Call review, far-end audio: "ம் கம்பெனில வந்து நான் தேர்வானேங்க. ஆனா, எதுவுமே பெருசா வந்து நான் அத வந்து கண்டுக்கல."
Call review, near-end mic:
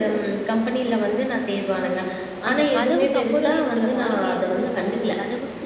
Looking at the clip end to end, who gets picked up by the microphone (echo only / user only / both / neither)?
both